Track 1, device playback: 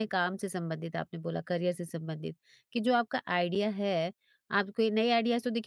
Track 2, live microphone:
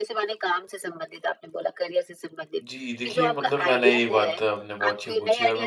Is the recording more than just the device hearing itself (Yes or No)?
Yes